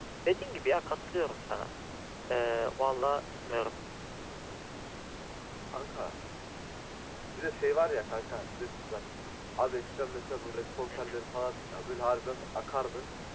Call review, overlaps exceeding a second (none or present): none